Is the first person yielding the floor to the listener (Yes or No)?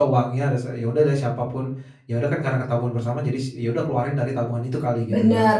Yes